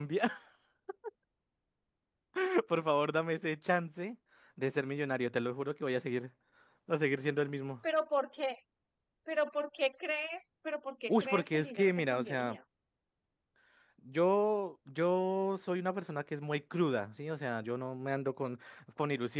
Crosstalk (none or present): present